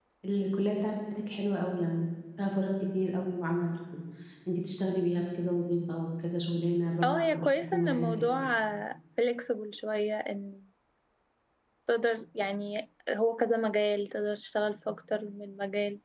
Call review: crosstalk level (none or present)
present